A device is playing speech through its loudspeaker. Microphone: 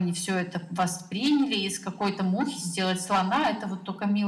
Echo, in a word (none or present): present